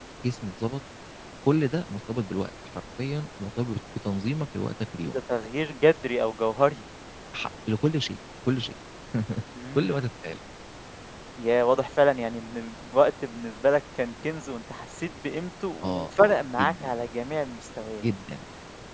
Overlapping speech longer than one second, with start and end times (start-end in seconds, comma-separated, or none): 15.8-17.0